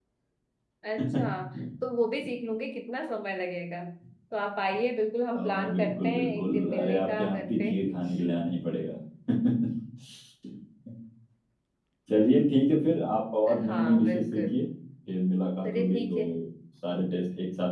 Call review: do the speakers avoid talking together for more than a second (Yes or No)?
No